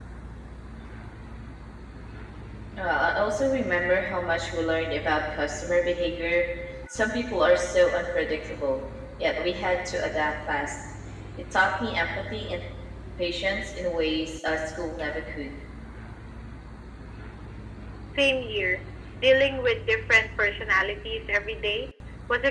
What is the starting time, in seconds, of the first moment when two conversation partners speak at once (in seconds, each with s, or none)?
none